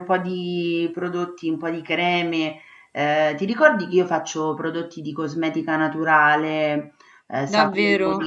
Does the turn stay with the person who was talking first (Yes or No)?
No